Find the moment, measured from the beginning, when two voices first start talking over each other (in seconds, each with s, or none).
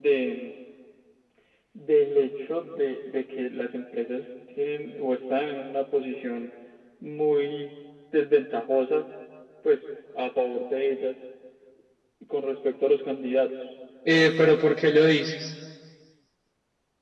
none